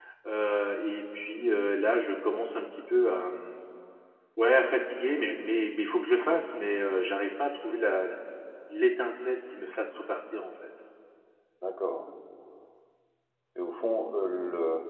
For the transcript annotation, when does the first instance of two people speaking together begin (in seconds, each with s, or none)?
none